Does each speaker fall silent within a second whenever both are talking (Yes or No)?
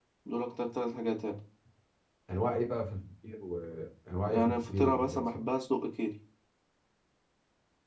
No